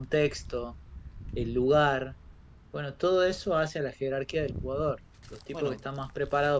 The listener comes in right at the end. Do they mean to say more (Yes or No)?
No